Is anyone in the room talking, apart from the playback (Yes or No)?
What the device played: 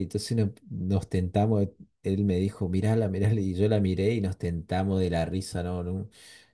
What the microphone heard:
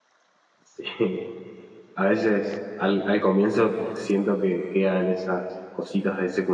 Yes